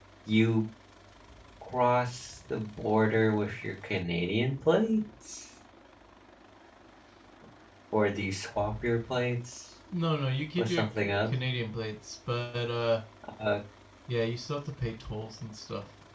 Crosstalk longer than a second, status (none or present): none